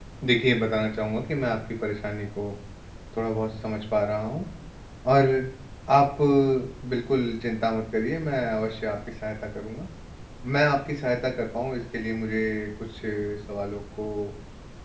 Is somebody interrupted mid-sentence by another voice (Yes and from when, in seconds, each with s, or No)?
No